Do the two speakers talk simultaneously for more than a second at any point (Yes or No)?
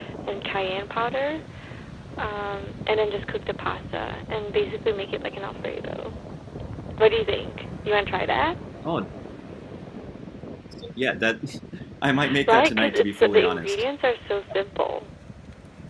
Yes